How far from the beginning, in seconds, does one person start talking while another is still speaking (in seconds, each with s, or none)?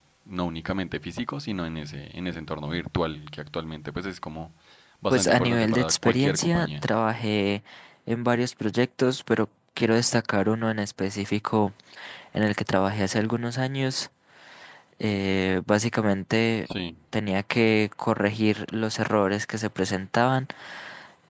5.1 s